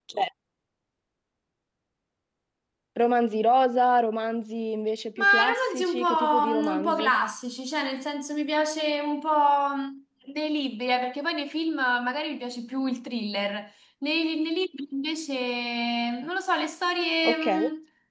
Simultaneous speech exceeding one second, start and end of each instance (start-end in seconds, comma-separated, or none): 5.2-7.1